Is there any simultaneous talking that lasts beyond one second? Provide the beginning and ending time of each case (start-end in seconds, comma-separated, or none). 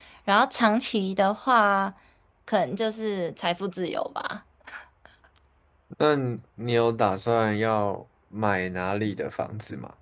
none